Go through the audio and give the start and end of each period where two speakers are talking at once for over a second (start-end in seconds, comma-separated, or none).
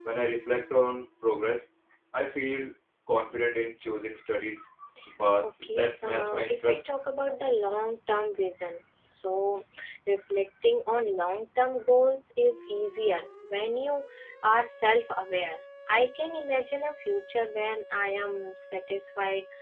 5.4-6.8